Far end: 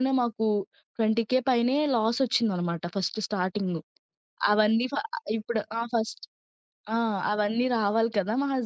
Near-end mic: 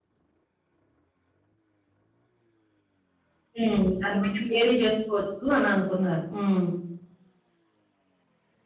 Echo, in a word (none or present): none